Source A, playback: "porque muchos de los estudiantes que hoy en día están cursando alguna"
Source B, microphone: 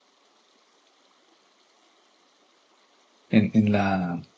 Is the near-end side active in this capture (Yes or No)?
Yes